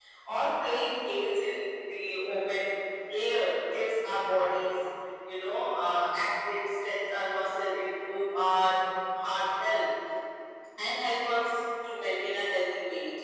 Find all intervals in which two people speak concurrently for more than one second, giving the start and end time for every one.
none

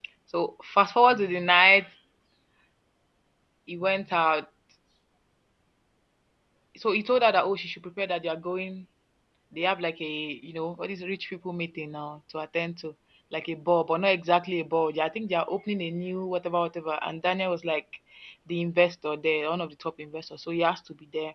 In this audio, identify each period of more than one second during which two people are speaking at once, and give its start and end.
none

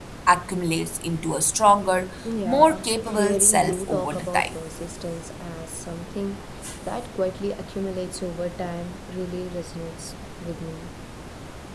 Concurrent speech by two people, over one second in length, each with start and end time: 2.4-4.5

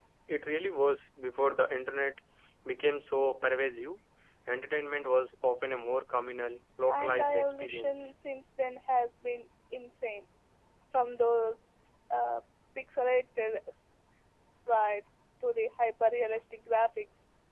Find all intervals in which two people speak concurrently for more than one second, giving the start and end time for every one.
6.9-8.1

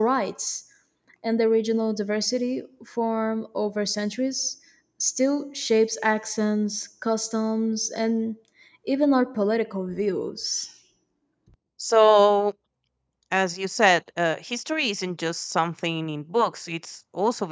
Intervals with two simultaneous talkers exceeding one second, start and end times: none

